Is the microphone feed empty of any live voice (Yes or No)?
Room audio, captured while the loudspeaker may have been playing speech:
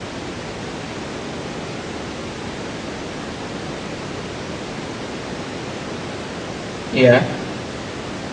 No